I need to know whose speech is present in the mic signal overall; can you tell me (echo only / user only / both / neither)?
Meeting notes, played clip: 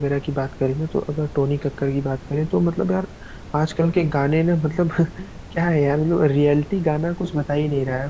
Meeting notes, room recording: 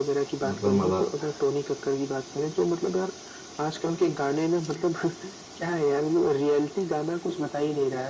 both